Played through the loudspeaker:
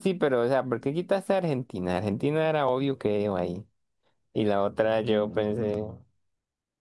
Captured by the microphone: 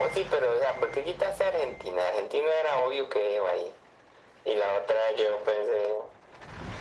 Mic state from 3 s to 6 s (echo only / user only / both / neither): echo only